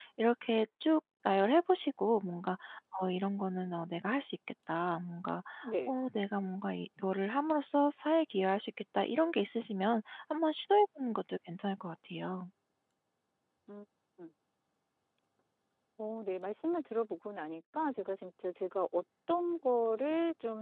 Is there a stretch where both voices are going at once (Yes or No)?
No